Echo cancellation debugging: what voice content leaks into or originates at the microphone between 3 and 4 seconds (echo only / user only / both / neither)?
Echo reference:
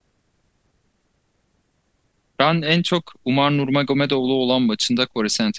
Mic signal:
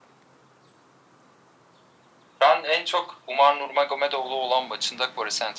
echo only